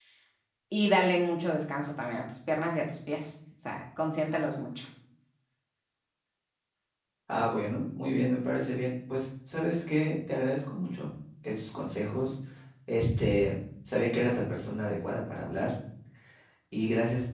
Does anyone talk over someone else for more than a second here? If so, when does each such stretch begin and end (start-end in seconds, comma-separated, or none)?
none